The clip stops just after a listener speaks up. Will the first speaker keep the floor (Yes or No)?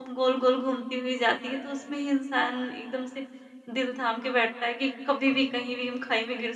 Yes